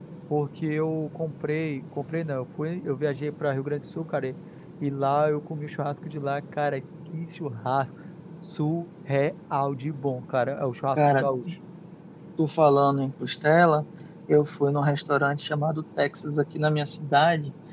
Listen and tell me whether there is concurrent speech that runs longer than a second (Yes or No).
No